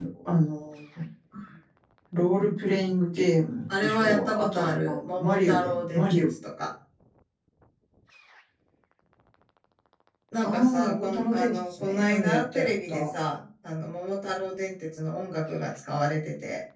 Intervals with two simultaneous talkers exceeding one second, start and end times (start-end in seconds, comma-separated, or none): 3.7-6.2, 10.4-13.1